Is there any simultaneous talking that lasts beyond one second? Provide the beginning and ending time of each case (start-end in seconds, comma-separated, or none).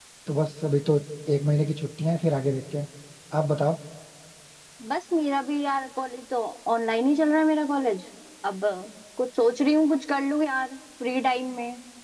none